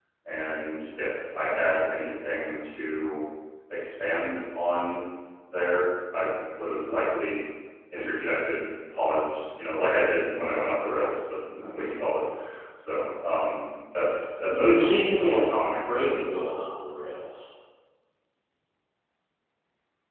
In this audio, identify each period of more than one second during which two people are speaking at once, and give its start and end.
none

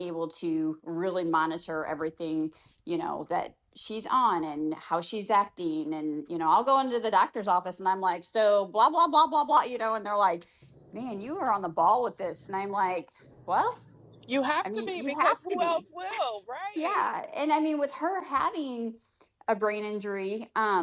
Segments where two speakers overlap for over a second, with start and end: 14.6-15.8

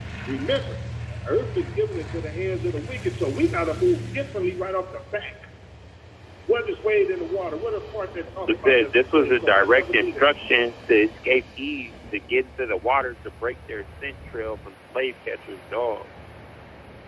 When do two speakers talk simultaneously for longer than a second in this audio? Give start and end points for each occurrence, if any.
8.5-10.3

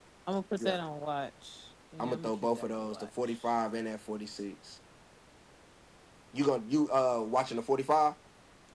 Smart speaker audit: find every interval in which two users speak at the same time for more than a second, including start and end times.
2.0-3.4

